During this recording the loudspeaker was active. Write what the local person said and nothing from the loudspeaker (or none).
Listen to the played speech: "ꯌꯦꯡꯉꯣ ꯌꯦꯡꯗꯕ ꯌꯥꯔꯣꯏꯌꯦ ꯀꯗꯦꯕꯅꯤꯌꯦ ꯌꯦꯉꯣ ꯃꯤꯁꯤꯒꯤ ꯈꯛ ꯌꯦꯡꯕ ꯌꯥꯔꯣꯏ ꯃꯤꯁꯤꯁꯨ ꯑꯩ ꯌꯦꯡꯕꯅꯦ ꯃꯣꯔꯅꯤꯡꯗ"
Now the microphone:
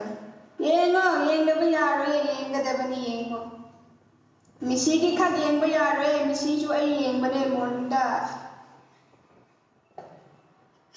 none